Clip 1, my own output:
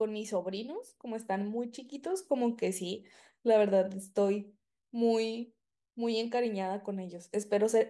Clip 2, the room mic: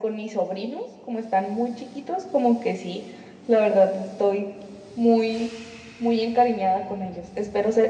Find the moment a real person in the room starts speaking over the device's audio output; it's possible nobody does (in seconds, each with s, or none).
none